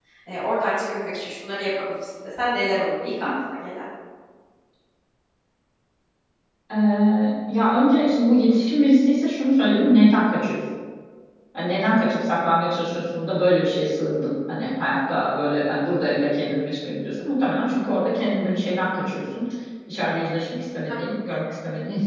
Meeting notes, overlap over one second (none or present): none